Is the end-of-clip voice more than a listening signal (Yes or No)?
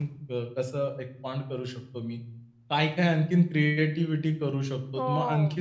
No